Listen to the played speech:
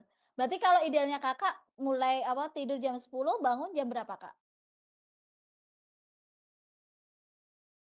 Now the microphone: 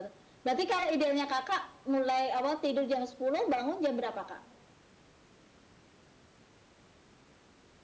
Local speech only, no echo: none

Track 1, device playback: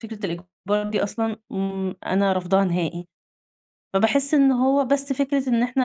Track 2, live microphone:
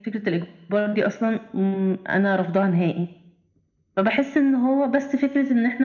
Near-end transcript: none

